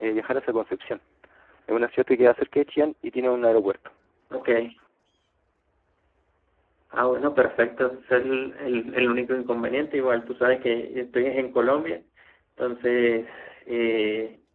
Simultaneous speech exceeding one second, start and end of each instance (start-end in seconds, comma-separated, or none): none